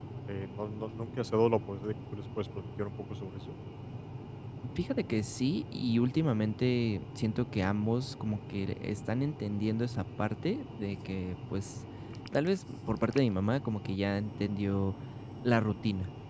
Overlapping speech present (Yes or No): No